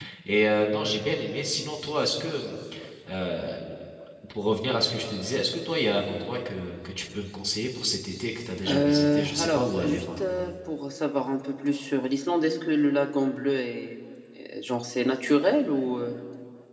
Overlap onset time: 8.6 s

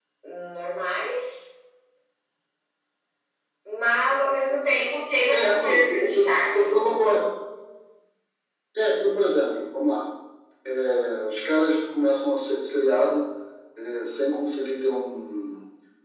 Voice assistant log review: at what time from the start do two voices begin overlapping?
5.3 s

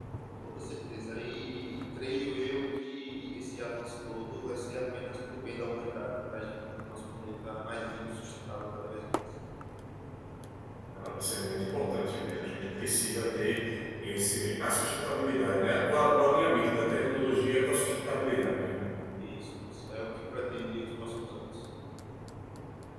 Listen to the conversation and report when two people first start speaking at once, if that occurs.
none

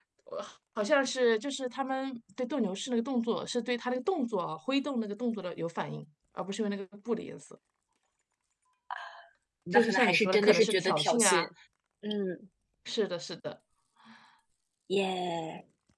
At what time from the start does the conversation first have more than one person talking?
9.7 s

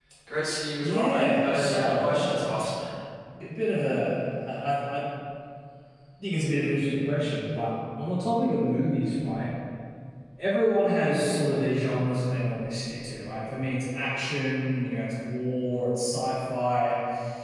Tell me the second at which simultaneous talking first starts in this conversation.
0.8 s

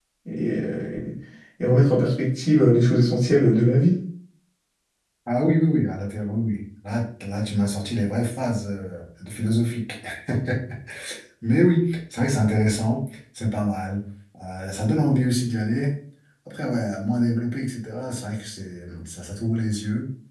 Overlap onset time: none

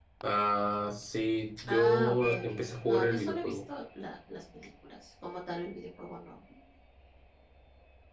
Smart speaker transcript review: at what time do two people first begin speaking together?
1.6 s

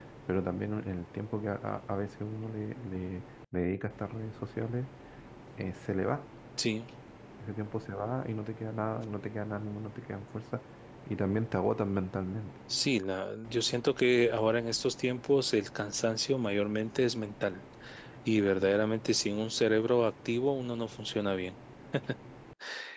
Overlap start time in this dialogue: none

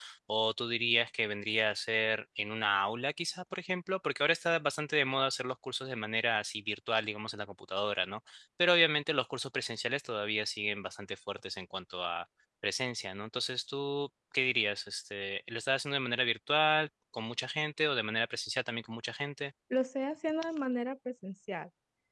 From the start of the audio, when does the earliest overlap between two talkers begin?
none

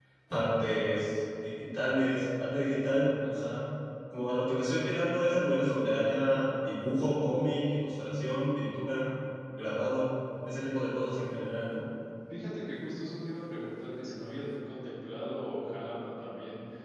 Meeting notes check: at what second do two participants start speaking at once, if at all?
none

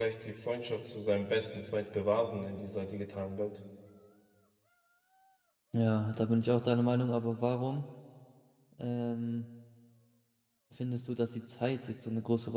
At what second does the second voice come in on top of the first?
none

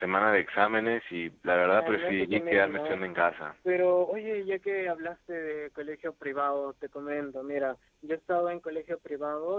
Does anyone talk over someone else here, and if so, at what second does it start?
1.7 s

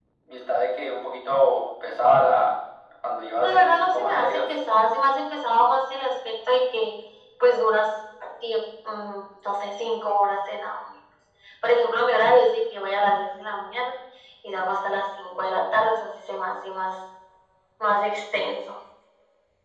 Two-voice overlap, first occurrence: 3.3 s

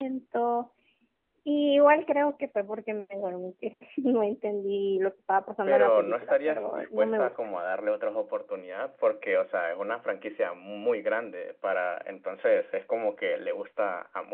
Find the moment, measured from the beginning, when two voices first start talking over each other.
5.7 s

